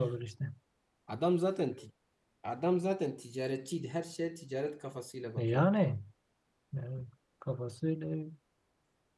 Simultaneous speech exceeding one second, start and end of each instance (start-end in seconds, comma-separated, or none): none